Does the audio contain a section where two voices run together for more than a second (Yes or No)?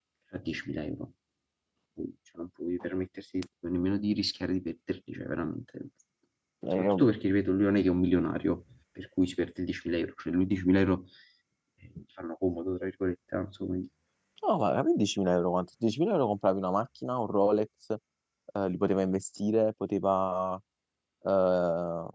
No